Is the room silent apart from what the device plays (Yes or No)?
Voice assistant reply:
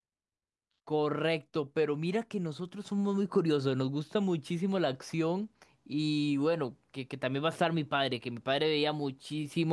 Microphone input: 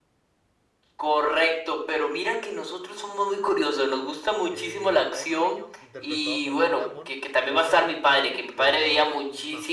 No